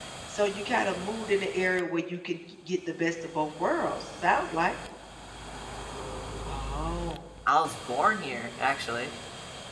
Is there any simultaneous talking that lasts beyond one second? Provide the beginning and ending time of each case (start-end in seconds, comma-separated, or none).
none